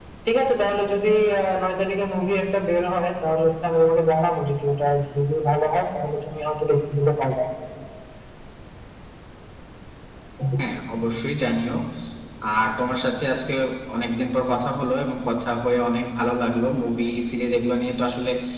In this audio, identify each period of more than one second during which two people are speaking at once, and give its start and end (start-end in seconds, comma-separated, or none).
none